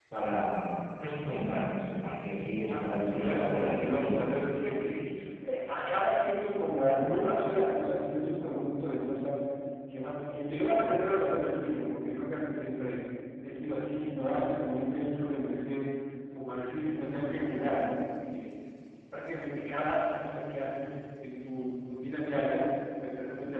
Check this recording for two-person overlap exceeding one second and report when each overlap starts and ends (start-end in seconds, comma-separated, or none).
2.7-4.3